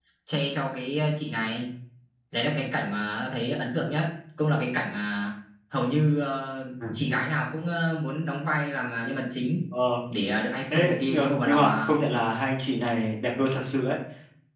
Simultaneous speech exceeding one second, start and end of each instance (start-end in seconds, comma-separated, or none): 10.7-11.9